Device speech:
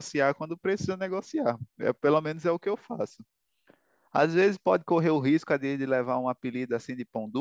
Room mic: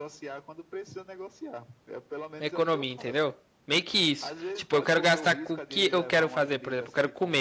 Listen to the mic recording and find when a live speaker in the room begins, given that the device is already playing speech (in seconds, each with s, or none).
2.4 s